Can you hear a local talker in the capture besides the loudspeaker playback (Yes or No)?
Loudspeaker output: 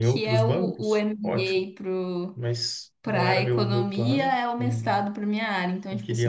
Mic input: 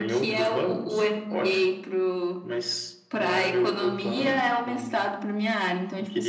No